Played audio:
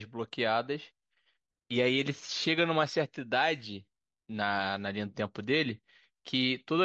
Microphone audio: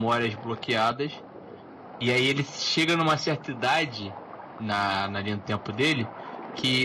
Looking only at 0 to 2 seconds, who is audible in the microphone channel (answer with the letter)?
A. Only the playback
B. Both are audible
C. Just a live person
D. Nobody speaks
A